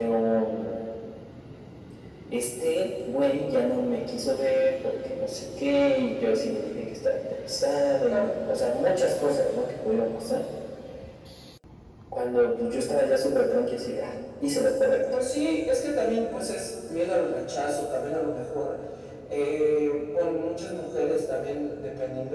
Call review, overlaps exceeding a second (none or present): none